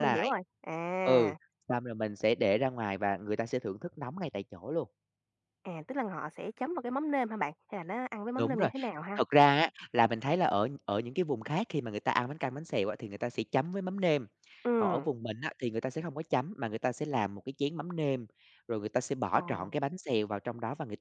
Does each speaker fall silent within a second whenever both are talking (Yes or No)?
Yes